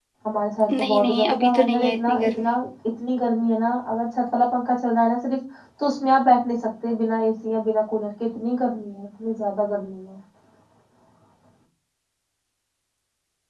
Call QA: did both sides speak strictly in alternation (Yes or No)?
No